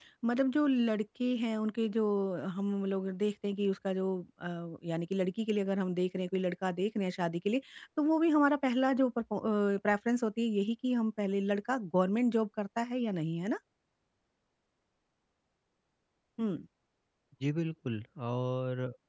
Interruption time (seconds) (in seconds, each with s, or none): none